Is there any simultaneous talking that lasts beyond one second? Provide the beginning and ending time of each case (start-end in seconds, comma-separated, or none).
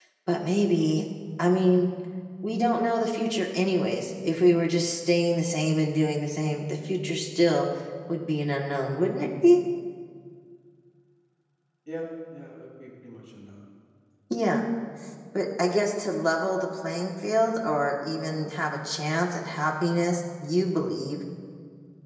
none